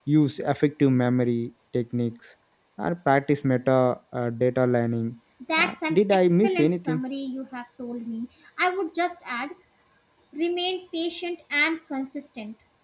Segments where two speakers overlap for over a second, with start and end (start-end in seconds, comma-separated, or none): 5.6-7.0